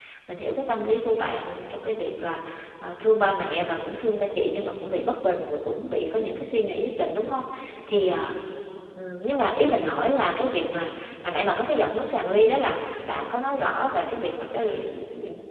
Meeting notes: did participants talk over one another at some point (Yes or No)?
No